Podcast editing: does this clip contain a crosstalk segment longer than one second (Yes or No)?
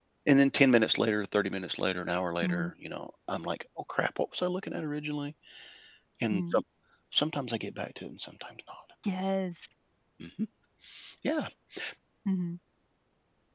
No